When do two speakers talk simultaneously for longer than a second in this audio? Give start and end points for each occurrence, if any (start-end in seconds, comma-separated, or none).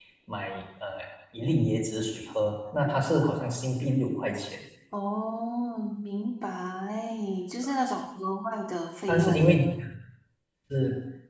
none